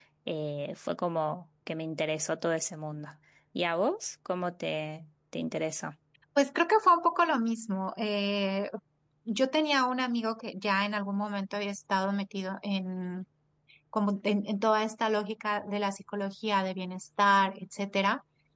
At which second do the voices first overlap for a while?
none

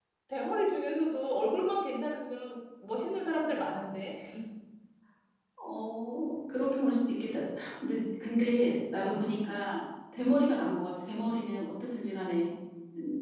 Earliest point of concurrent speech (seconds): none

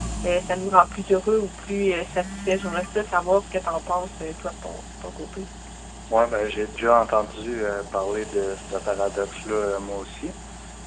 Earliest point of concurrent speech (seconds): none

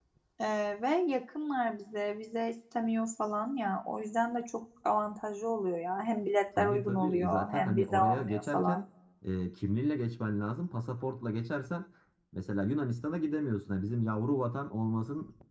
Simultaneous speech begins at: 6.6 s

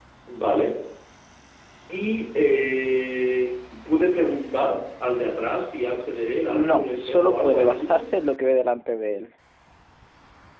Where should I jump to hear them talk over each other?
6.5 s

